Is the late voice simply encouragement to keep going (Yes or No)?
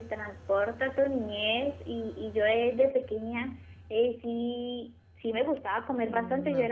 Yes